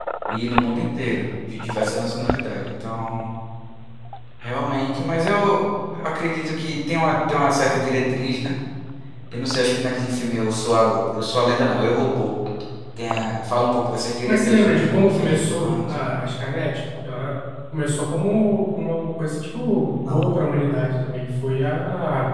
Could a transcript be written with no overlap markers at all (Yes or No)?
No